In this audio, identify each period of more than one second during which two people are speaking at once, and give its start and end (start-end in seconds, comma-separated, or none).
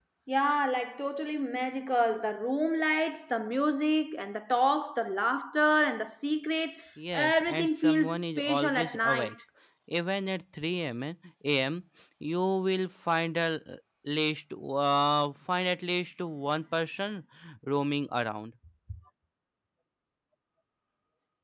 7.1-9.3